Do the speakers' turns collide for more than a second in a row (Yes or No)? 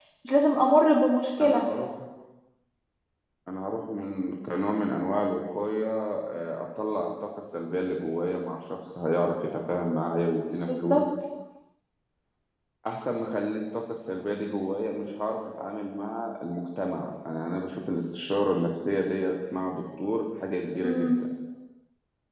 No